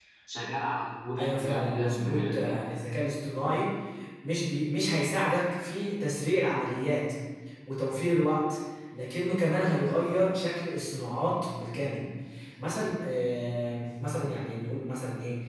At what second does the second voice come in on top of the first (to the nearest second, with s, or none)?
1 s